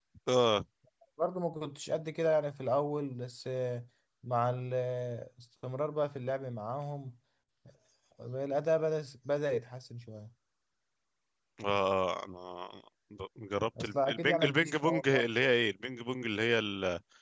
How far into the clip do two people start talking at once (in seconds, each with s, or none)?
13.8 s